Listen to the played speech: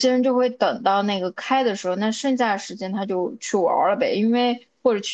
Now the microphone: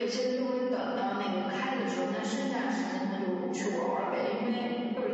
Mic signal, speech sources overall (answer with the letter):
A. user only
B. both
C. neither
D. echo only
D